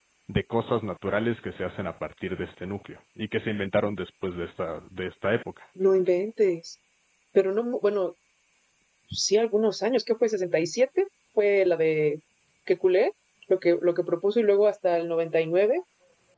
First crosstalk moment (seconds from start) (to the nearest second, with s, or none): none